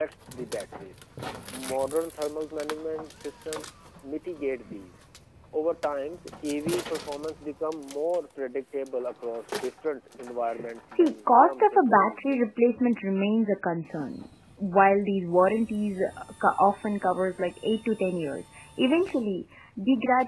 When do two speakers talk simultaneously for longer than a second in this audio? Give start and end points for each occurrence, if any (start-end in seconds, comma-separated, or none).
10.9-12.4